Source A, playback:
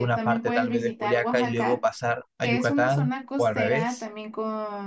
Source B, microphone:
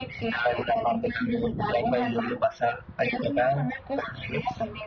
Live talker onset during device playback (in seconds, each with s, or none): none